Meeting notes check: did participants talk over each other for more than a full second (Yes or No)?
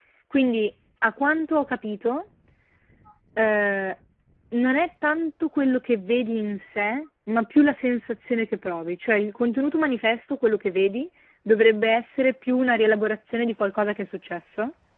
No